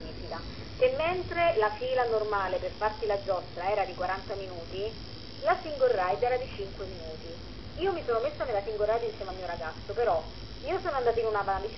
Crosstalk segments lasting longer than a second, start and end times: none

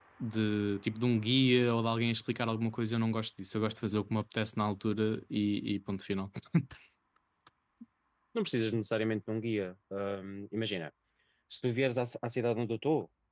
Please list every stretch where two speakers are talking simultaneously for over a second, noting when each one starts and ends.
none

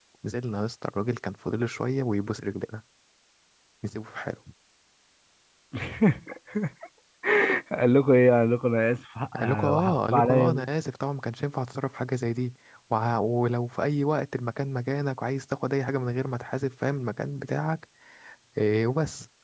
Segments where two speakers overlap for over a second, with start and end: 9.4-10.7

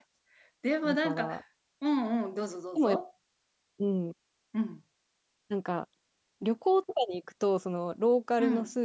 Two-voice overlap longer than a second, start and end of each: none

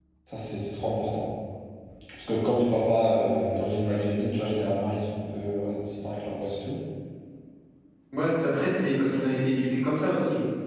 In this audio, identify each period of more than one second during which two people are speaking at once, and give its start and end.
none

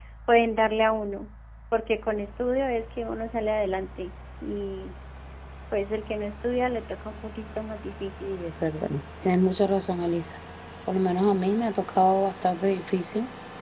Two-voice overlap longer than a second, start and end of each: none

